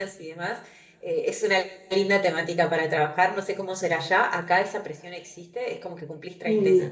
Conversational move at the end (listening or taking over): listening